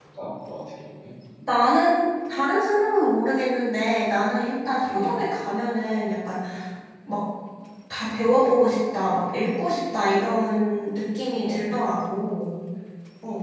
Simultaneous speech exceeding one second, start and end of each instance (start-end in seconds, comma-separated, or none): none